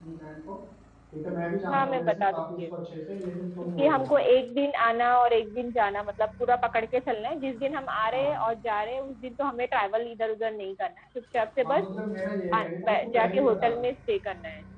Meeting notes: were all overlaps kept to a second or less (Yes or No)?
No